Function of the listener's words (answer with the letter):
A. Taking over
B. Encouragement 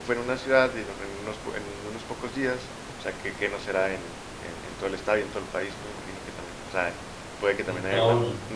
B